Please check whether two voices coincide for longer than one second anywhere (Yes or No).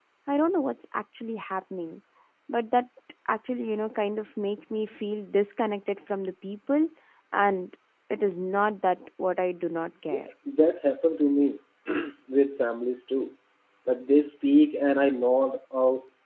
No